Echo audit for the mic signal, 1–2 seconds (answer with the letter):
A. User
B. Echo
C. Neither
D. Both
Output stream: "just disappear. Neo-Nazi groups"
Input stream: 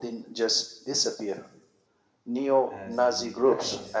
B